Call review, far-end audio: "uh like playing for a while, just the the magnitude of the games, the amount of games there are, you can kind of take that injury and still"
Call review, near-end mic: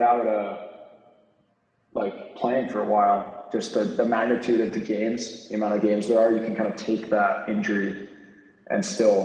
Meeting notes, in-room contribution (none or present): none